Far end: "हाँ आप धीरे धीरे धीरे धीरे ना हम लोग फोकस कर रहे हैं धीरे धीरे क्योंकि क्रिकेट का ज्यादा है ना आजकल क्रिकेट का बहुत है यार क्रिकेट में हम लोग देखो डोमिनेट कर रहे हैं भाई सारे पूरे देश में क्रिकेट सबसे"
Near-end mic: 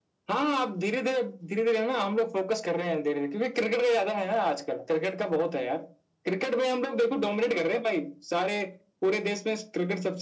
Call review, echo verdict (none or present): present